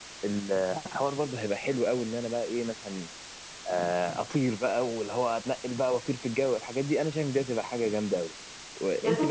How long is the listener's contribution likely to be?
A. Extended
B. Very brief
A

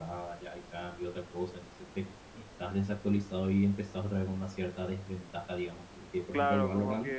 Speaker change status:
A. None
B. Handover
B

